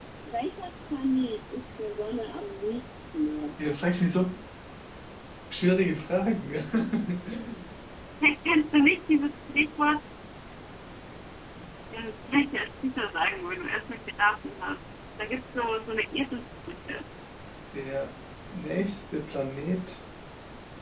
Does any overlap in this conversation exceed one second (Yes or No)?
No